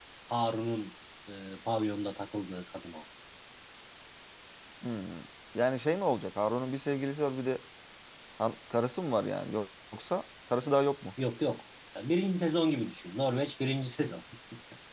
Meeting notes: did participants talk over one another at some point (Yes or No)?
No